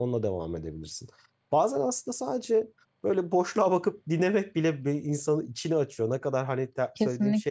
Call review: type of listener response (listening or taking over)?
listening